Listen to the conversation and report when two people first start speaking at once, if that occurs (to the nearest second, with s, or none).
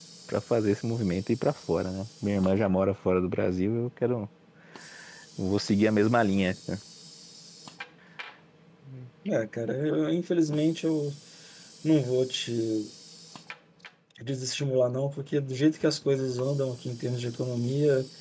none